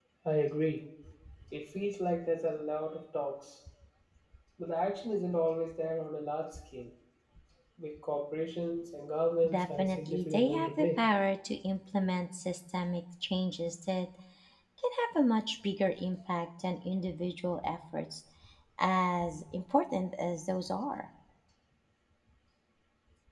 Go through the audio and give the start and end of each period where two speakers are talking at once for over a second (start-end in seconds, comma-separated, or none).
9.5-11.0